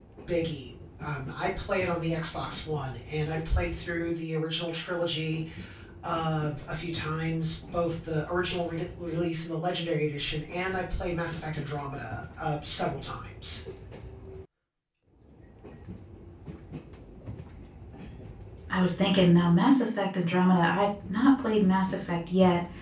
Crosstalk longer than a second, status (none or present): none